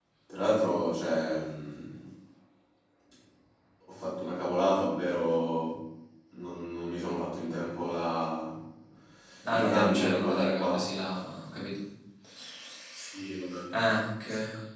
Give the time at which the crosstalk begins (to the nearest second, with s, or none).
10 s